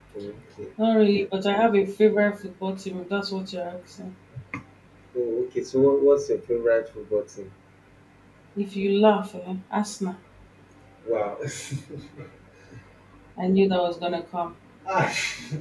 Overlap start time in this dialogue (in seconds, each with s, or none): none